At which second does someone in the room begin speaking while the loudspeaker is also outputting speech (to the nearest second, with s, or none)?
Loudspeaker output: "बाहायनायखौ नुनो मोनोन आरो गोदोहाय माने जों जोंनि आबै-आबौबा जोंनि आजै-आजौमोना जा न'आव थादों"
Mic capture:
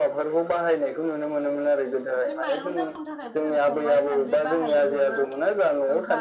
2 s